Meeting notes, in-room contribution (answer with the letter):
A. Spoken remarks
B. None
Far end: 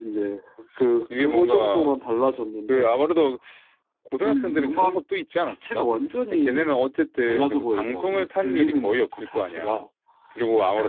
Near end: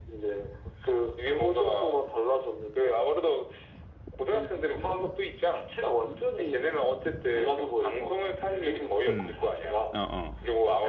A